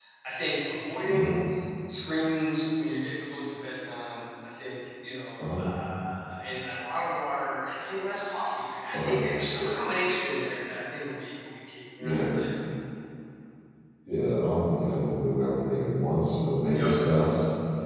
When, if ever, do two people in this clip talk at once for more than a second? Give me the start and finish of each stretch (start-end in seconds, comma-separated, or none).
none